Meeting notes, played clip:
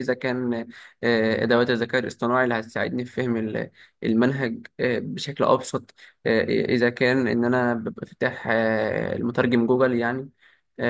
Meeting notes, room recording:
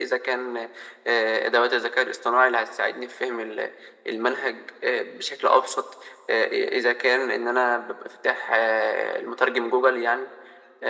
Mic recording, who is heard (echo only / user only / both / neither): echo only